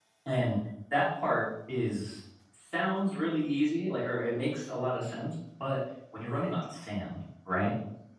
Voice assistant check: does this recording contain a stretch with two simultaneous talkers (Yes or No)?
No